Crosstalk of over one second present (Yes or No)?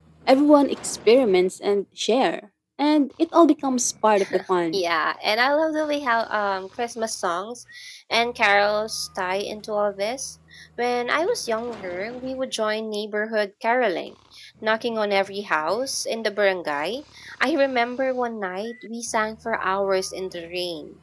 No